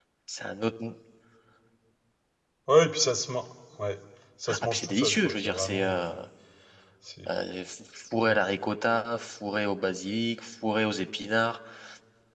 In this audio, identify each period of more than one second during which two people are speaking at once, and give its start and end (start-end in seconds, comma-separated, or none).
4.5-6.1